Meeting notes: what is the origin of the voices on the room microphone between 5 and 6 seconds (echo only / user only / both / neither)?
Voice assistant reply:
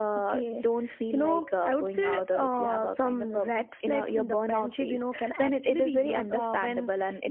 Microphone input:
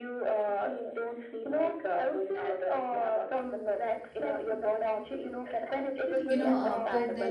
echo only